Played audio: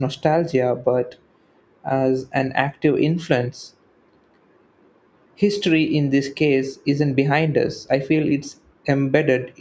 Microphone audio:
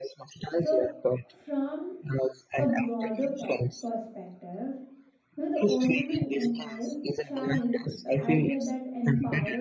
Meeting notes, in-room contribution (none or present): present